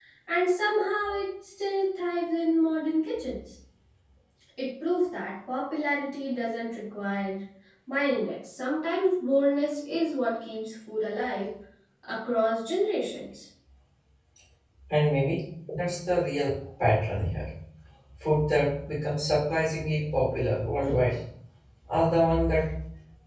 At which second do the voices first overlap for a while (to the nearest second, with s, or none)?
none